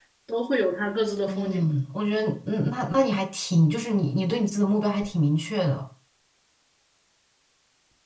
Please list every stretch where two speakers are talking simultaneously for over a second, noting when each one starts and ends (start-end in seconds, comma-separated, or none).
none